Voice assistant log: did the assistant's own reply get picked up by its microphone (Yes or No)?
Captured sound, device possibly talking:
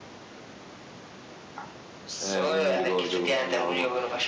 Yes